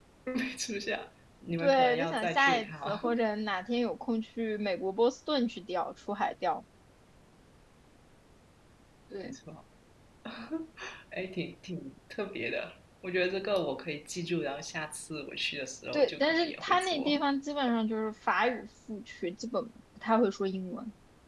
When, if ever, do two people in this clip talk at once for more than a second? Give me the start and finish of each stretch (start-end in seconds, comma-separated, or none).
1.6-3.1, 15.9-17.2